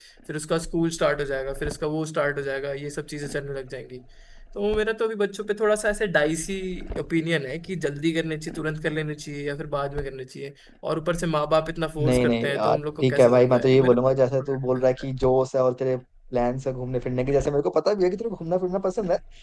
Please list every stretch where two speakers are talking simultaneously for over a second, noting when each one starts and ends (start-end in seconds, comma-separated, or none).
12.0-14.0